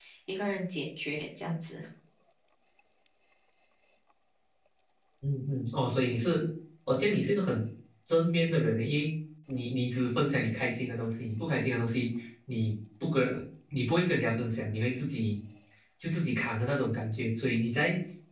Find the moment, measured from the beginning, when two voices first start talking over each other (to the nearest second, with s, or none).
none